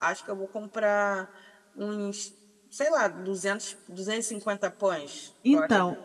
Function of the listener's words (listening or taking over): taking over